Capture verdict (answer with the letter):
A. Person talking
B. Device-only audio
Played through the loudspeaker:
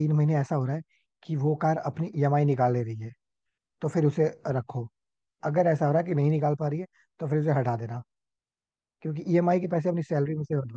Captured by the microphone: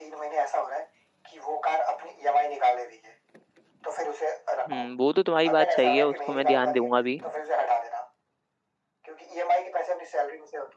A